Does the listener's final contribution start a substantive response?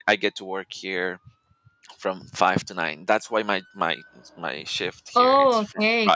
Yes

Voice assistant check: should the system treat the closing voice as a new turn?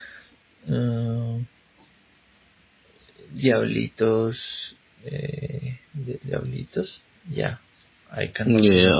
Yes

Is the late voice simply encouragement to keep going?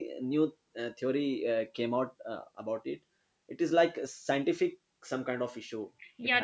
No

